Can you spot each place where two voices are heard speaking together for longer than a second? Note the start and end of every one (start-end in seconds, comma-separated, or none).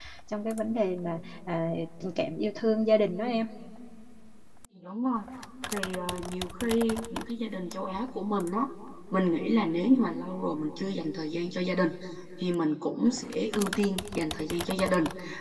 none